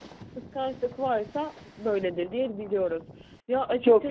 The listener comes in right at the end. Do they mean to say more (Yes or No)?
Yes